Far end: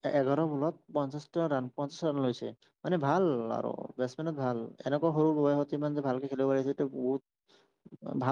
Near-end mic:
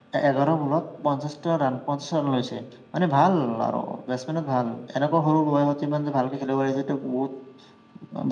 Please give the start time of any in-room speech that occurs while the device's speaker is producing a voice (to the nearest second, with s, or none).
none